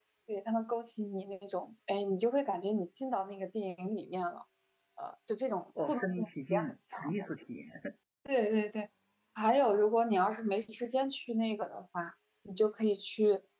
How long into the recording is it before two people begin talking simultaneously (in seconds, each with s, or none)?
5.8 s